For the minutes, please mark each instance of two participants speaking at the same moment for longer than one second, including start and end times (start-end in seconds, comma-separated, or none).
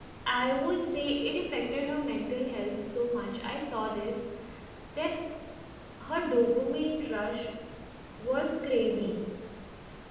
none